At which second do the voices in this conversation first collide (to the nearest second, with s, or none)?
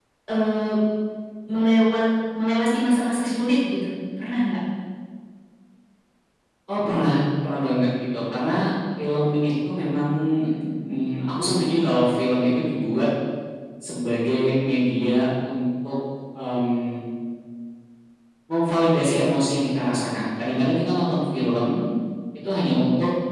none